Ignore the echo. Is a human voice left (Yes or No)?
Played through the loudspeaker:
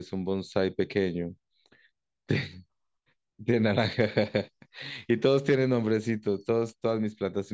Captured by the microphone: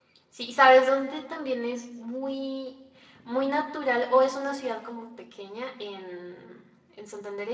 Yes